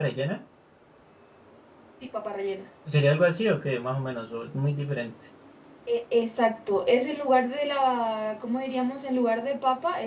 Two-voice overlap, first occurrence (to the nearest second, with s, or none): none